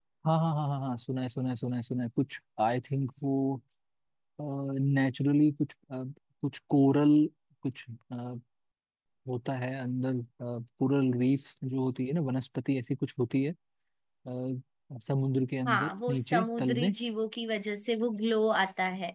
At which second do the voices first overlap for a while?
15.6 s

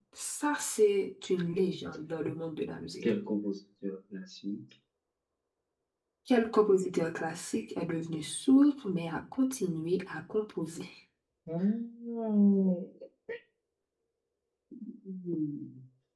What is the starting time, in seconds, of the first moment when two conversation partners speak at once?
none

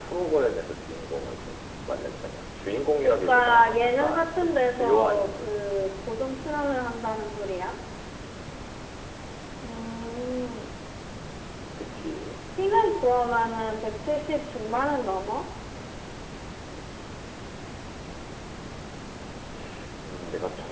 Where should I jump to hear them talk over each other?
3.0 s

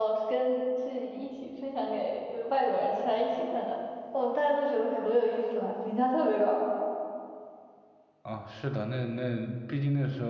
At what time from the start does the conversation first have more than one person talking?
none

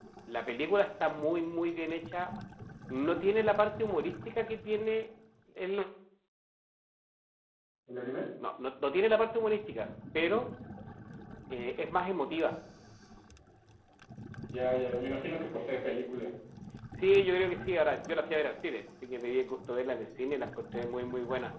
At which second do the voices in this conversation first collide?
none

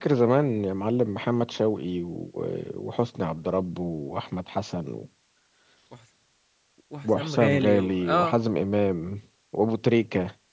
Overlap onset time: 7.0 s

